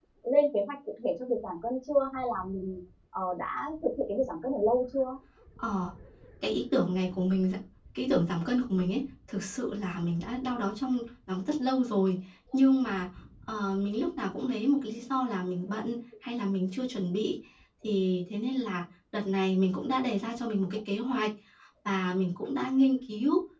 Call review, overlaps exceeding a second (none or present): none